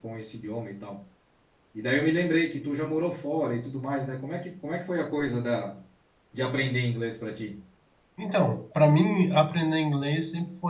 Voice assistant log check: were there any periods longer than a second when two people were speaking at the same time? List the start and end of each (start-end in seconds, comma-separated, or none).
none